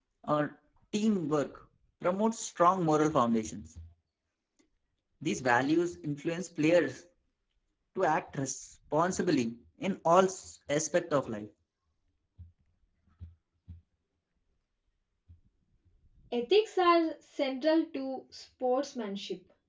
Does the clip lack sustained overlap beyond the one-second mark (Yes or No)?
Yes